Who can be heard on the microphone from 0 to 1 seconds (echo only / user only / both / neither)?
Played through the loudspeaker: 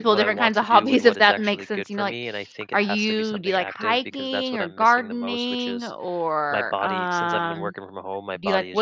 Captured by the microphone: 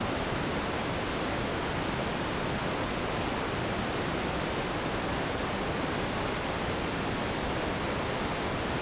neither